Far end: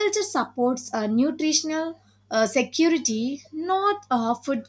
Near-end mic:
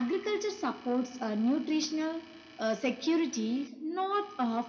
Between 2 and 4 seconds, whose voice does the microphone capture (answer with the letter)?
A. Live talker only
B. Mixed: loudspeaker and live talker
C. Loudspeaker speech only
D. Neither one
C